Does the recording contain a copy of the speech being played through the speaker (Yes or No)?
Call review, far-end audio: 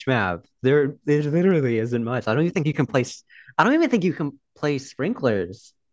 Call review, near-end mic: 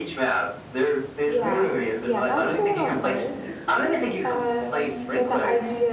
Yes